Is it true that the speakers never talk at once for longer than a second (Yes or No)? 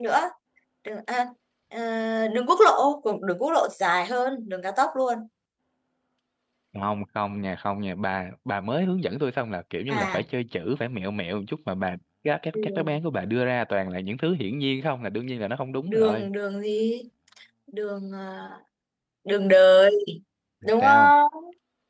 Yes